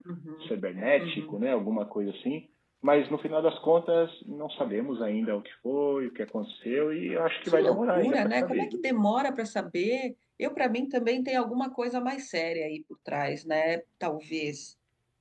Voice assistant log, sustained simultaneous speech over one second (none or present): present